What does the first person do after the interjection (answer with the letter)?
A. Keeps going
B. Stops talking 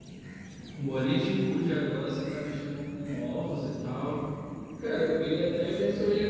A